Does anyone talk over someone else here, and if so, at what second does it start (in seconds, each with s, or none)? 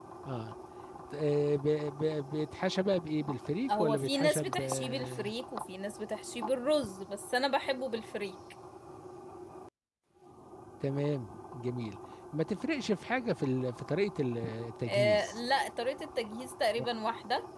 3.8 s